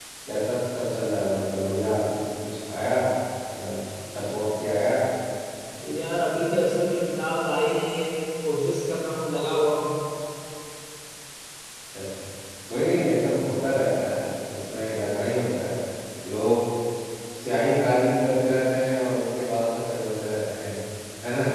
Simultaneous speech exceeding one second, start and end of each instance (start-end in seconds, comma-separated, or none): none